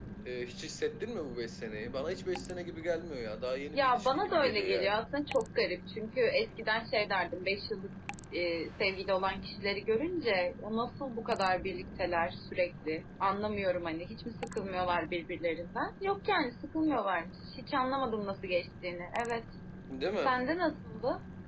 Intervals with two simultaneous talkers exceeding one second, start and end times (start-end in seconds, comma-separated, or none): 3.7-5.0